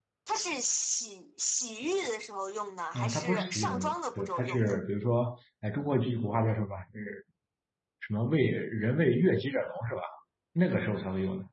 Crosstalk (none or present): present